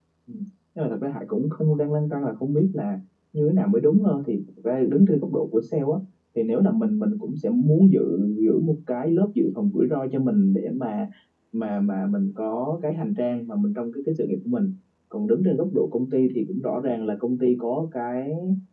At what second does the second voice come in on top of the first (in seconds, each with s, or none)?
none